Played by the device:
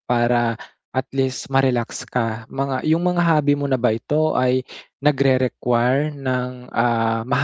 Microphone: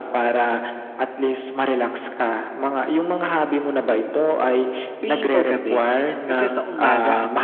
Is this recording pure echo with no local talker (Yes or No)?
No